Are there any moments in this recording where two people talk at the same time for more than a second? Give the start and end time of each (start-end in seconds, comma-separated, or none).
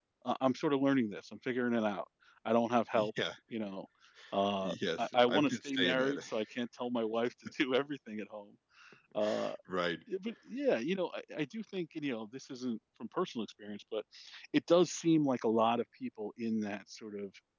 4.6-6.2